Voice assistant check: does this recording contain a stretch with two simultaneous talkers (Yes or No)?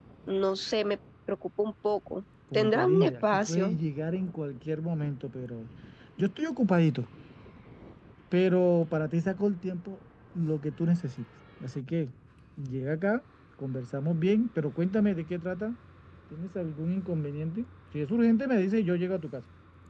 Yes